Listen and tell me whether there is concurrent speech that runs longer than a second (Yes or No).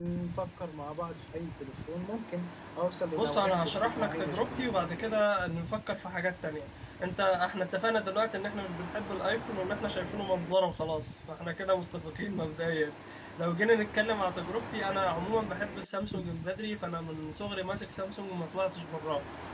Yes